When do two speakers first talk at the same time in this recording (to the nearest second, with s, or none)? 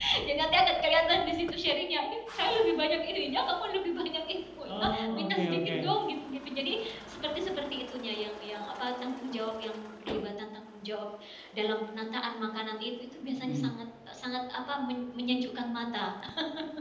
5 s